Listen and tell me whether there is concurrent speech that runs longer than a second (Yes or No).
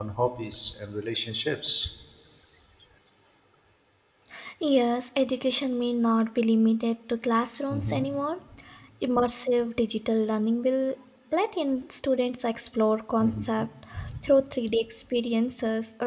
No